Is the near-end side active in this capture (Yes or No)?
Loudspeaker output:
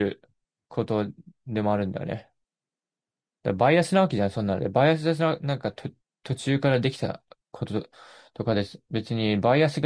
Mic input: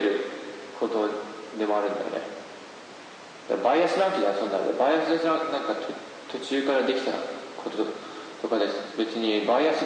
No